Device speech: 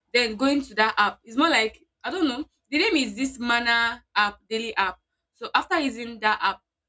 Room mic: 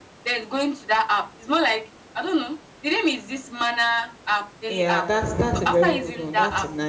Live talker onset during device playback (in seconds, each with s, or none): 4.7 s